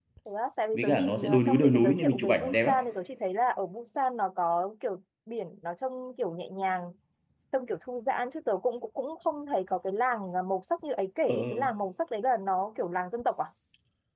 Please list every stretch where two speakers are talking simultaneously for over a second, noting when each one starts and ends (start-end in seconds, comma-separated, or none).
0.7-2.7